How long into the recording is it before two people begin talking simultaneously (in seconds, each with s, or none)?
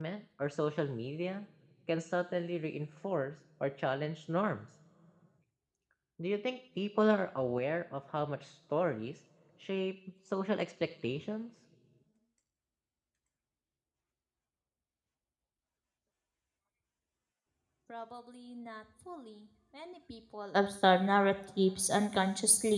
none